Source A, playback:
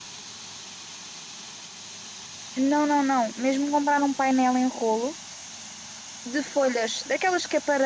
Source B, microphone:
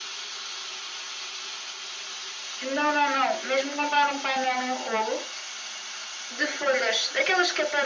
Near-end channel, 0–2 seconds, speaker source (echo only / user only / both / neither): neither